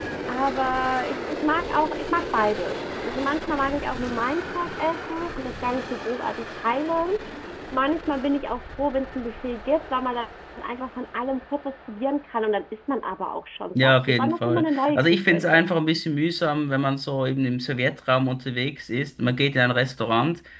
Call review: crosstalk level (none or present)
present